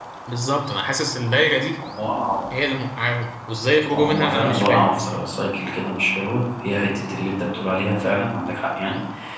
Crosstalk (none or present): present